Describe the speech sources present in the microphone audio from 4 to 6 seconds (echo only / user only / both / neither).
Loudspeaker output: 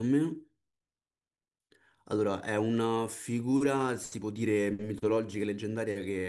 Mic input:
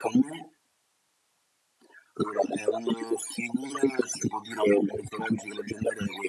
echo only